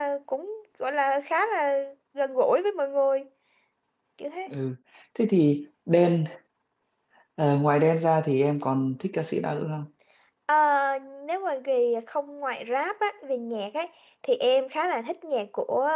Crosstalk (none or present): none